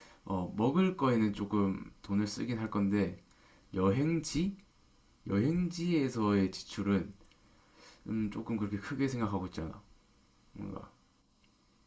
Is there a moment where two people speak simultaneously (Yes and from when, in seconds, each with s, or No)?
No